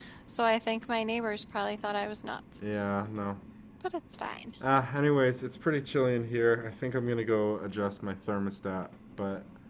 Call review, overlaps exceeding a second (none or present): none